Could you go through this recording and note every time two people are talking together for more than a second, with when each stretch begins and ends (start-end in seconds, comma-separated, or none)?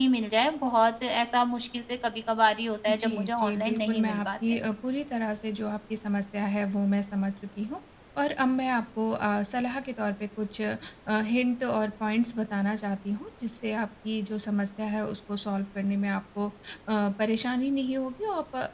2.9-4.6